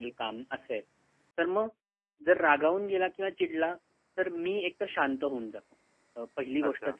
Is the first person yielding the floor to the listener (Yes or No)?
No